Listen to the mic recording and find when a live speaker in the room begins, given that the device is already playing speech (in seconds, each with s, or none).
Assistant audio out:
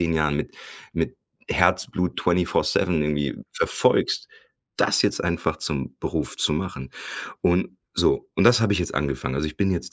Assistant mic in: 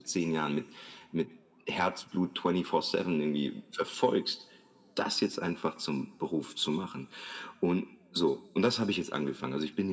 none